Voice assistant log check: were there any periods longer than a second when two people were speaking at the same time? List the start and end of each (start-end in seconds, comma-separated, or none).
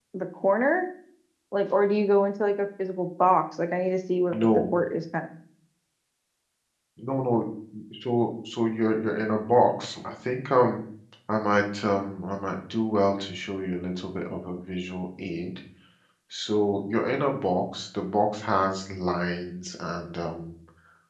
none